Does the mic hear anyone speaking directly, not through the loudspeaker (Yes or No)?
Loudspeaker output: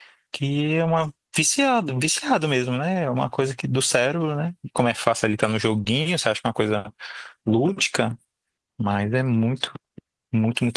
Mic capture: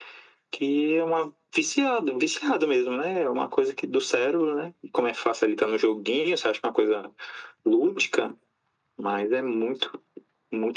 No